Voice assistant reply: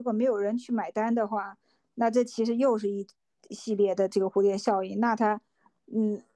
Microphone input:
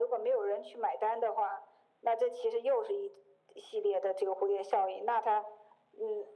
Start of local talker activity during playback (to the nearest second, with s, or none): none